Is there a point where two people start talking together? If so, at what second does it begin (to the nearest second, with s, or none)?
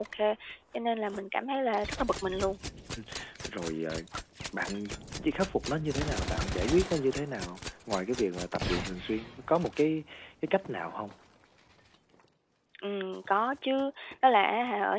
none